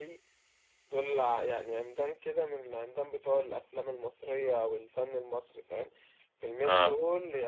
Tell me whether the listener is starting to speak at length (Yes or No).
No